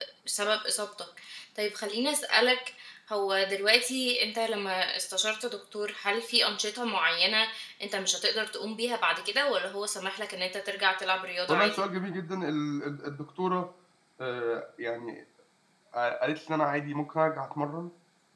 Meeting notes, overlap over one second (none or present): none